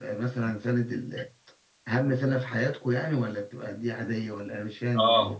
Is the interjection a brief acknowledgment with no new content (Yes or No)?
No